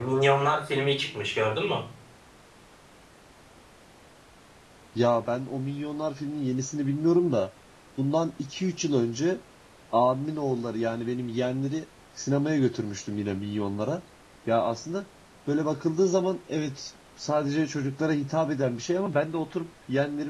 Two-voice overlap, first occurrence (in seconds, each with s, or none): none